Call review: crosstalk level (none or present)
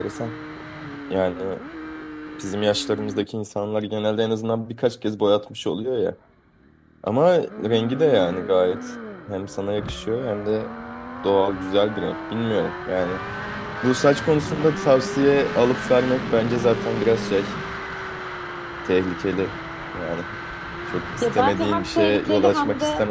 present